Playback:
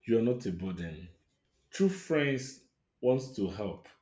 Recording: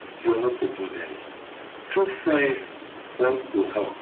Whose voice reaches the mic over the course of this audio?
echo only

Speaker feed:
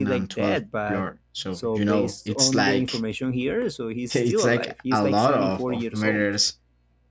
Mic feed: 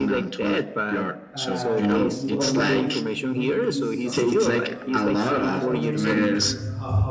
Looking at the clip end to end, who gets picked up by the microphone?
both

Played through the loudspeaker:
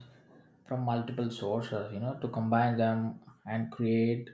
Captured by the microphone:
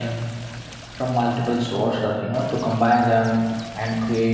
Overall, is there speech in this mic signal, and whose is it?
echo only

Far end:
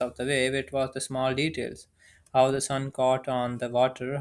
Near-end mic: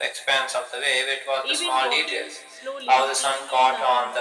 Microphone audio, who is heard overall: both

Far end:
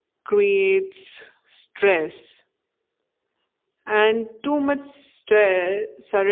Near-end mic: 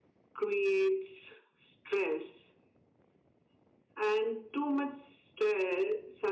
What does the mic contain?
echo only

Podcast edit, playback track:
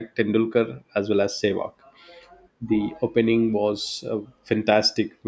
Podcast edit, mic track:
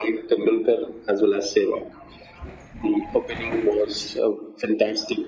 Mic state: echo only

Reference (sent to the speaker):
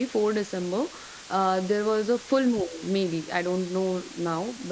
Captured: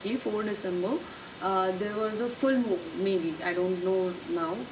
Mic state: echo only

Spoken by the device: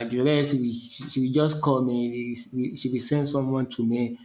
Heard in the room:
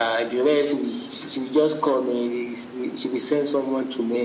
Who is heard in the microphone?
echo only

